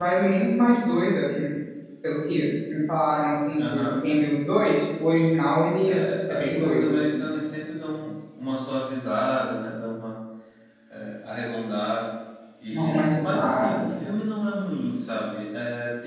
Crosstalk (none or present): present